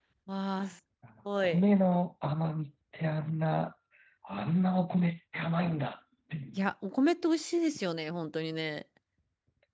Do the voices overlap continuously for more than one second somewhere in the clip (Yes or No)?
No